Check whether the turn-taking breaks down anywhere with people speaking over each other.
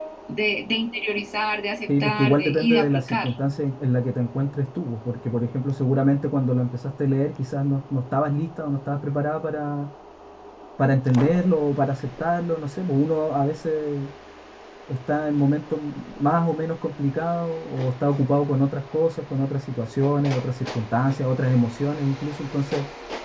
Yes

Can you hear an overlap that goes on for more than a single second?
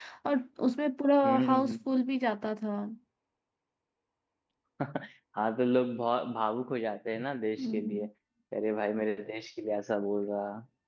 No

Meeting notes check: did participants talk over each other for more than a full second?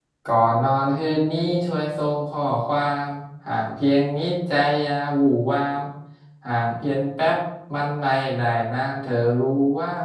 No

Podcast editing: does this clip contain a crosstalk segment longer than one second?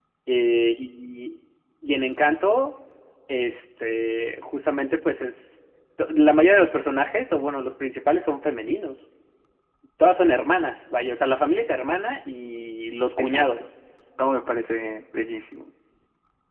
No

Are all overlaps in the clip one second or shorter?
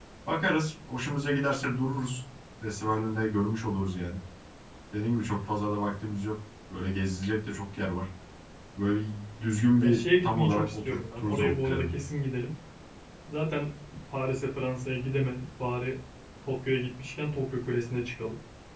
No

